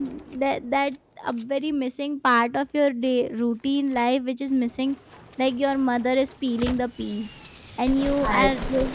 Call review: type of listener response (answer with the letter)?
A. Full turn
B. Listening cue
B